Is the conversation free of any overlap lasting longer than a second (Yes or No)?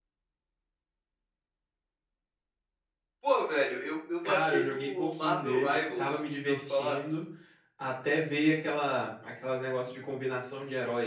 No